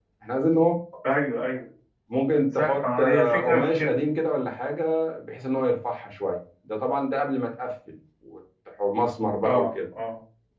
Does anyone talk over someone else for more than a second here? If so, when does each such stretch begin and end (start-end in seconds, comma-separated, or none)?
2.6-4.0